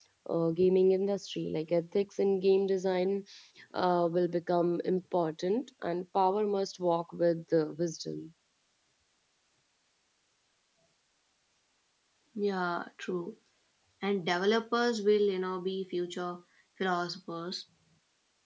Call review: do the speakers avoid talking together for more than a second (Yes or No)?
Yes